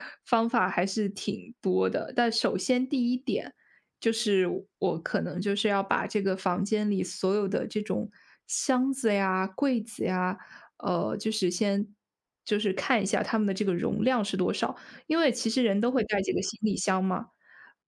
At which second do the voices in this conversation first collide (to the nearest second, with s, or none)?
none